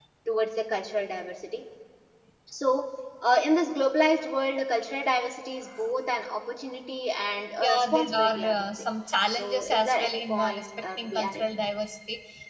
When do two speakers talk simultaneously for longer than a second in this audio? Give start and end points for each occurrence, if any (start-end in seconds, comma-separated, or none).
7.6-8.8, 9.3-11.4